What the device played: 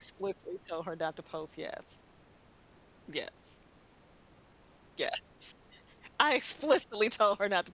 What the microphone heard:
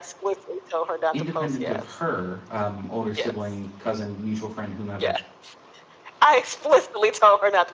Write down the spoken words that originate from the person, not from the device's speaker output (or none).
independent of her, um, older sibling, cousin, mutual friend, whomever,